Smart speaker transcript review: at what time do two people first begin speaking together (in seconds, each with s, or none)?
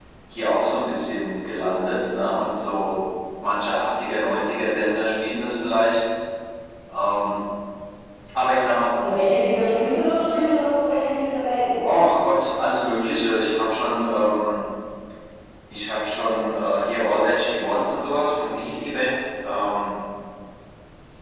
none